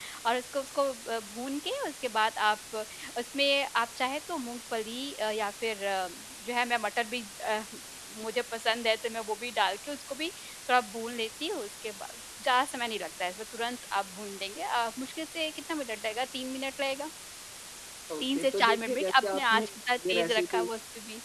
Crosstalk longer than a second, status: present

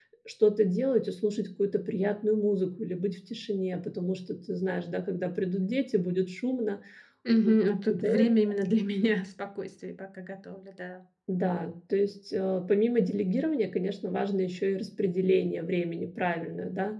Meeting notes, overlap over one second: none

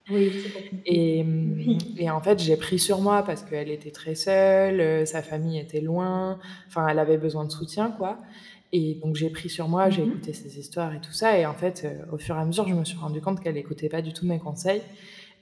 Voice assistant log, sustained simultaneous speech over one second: none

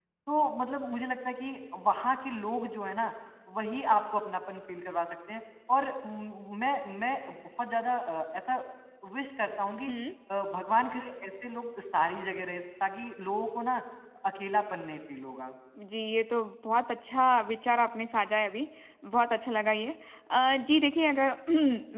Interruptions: none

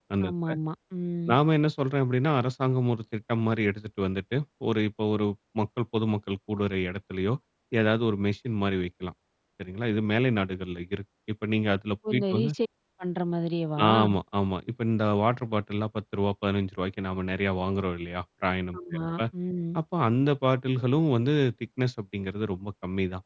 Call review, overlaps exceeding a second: none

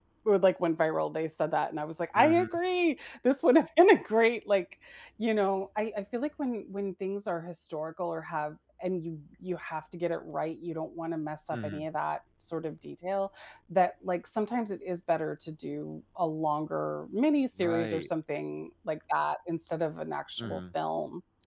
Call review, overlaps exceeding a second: none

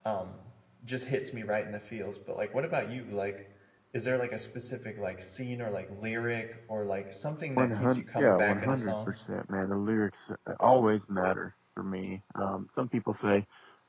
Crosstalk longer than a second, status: present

